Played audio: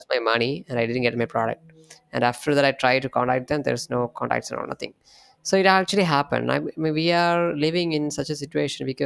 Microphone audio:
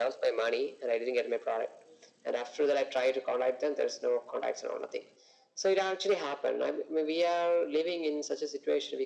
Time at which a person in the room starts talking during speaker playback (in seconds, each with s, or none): none